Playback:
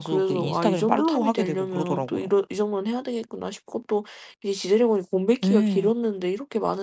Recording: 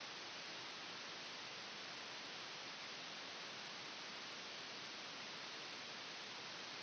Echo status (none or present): none